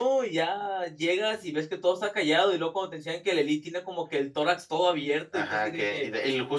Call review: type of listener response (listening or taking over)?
taking over